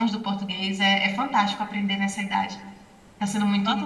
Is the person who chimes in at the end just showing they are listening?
No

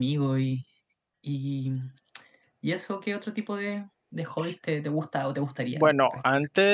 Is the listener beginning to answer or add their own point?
Yes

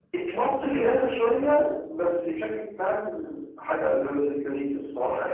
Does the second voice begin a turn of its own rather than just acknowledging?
Yes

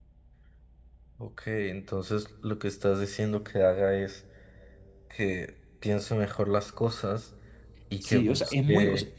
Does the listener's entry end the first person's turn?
Yes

